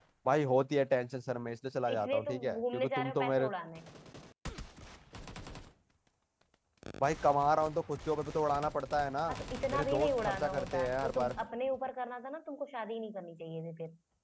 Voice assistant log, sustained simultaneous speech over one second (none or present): present